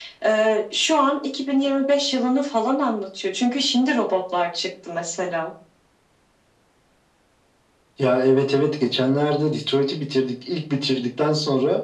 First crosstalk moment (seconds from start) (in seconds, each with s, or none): none